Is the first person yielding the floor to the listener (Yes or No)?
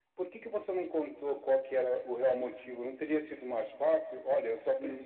Yes